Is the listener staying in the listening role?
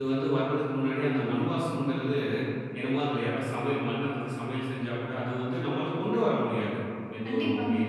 Yes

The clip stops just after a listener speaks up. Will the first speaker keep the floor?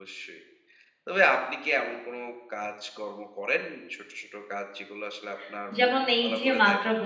No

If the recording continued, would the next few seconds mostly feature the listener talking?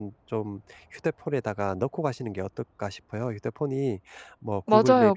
Yes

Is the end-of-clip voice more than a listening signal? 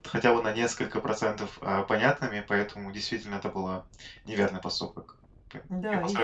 Yes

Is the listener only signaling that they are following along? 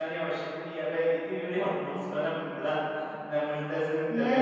No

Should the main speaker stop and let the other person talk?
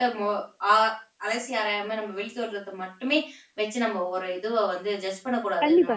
Yes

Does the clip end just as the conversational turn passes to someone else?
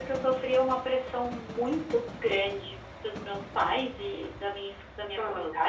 No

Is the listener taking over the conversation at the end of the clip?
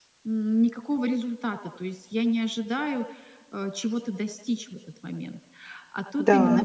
No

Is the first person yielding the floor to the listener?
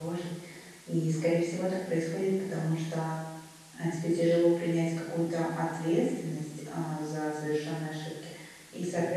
No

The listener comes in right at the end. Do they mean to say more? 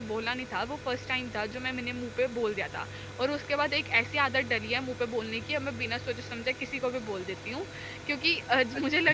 No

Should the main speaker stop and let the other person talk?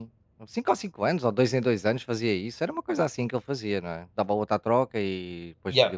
Yes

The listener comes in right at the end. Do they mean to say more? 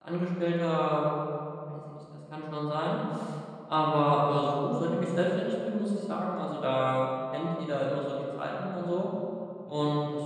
No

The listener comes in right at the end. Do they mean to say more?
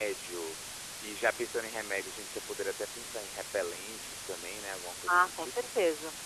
Yes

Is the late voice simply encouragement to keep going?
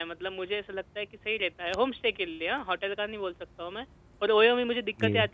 Yes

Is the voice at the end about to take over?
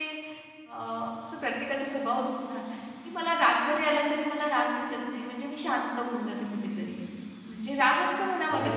No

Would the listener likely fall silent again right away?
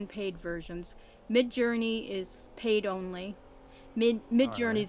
Yes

